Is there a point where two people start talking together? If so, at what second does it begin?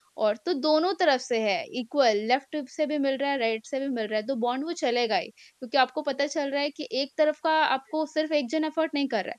none

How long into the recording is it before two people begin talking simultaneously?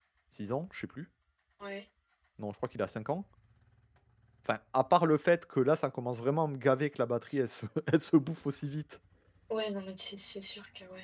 none

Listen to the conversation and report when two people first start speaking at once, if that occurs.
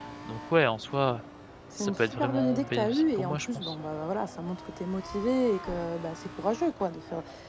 1.8 s

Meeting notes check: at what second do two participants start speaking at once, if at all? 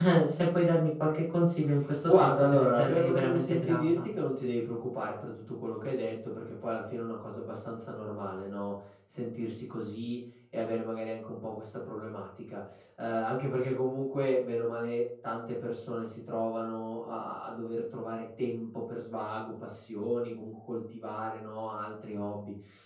2.0 s

